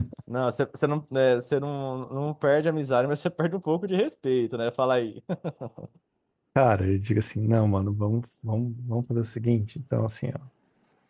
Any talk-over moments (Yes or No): No